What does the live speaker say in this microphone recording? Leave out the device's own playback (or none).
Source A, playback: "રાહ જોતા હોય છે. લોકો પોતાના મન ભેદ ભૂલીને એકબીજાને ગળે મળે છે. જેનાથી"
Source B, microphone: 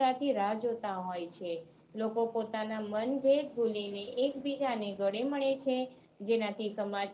none